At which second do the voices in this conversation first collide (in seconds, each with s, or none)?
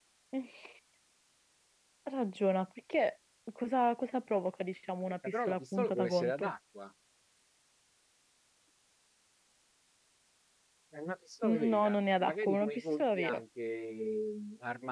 5.3 s